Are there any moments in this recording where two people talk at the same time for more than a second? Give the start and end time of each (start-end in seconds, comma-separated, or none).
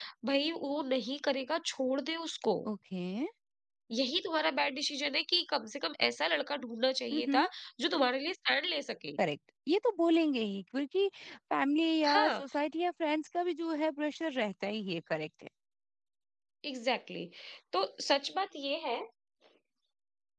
none